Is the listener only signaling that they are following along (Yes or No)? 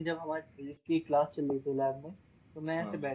Yes